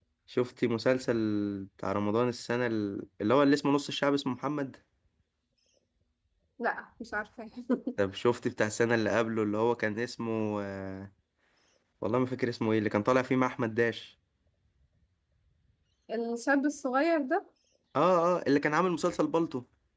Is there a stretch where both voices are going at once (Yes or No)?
No